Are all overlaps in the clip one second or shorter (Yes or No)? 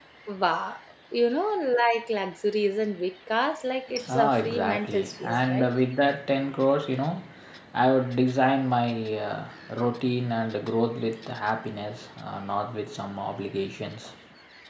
No